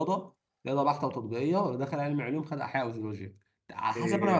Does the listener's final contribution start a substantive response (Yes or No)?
Yes